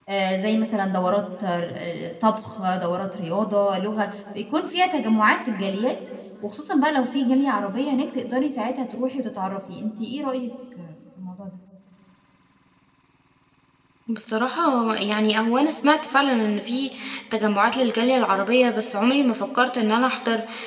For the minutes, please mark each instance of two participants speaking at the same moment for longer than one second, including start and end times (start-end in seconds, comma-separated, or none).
none